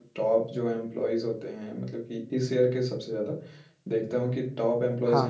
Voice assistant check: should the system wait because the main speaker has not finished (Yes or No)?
Yes